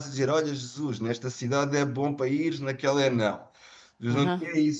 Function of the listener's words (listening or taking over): listening